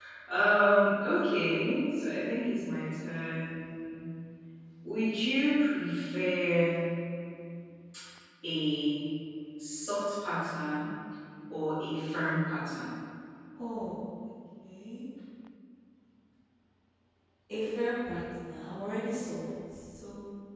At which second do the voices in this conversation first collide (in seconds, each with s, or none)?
none